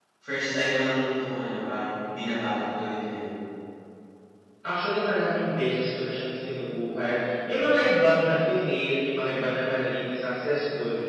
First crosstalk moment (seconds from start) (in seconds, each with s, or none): none